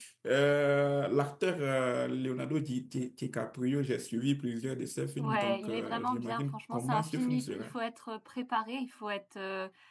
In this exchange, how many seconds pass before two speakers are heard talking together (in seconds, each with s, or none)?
5.2 s